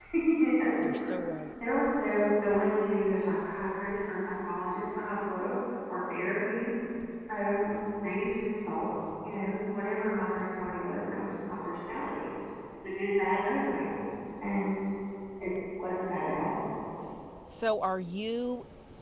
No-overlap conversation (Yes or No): Yes